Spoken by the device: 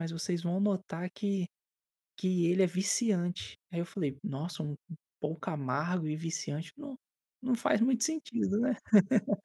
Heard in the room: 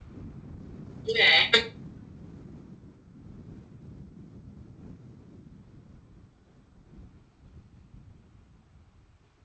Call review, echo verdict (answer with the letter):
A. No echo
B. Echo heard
A